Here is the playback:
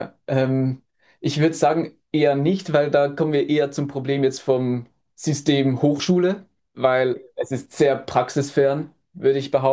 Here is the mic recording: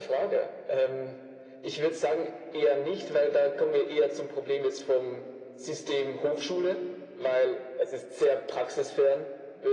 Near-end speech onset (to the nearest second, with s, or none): none